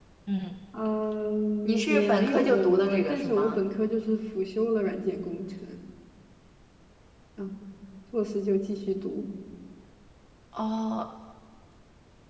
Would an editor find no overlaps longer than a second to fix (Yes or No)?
No